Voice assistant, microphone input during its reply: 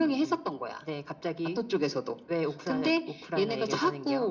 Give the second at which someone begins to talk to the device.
none

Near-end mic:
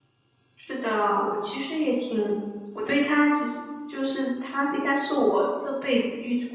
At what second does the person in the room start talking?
0.6 s

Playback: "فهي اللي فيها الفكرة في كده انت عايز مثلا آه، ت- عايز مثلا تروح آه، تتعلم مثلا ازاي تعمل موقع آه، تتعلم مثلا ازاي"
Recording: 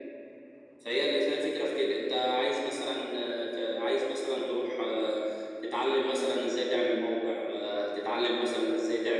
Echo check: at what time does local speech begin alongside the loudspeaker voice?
none

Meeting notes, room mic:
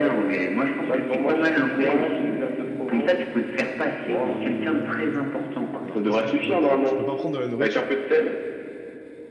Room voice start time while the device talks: 4.1 s

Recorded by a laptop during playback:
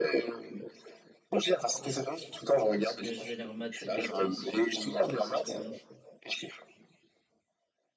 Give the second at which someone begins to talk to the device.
1.7 s

